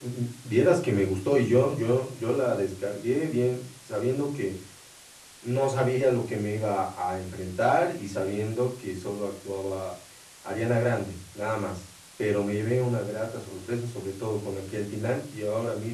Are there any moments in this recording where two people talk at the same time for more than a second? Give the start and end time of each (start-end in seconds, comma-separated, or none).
none